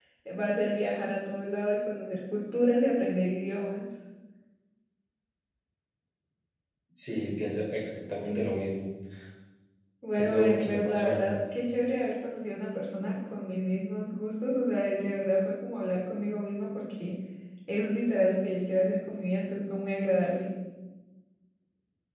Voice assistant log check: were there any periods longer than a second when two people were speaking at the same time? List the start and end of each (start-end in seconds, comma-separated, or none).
10.1-11.3